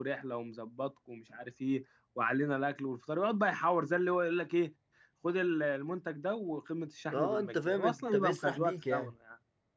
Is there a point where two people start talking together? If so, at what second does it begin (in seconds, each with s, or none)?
7.1 s